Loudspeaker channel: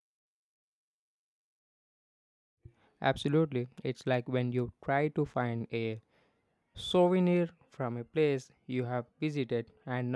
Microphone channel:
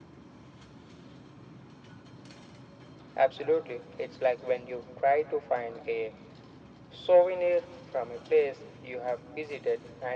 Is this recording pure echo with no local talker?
Yes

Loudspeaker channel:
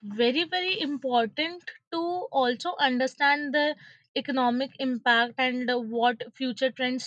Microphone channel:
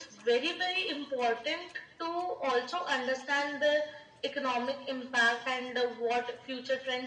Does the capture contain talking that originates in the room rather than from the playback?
No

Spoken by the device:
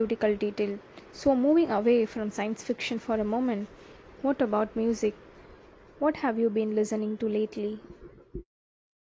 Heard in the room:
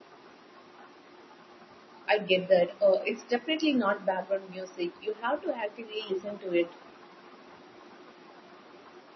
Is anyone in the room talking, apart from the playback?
Yes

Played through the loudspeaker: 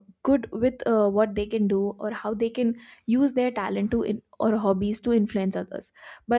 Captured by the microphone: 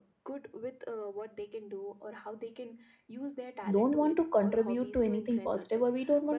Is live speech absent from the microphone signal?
No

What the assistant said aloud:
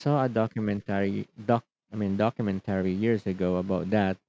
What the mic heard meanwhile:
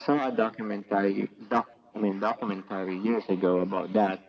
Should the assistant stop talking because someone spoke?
No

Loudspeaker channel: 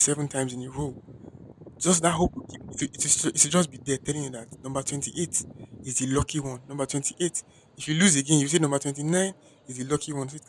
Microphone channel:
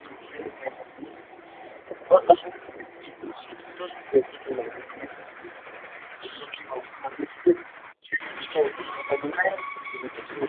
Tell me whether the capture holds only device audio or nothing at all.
Yes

